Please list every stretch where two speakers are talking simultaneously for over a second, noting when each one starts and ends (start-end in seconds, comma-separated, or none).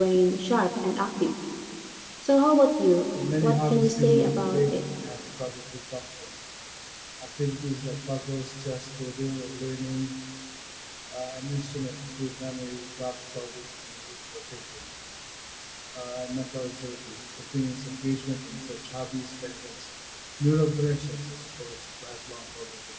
3.4-4.8